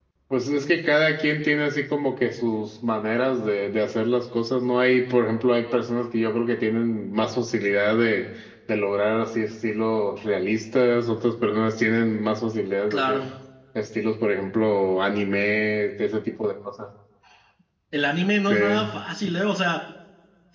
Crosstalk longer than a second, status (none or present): none